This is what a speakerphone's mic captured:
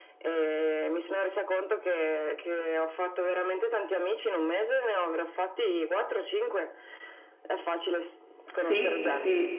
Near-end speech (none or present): present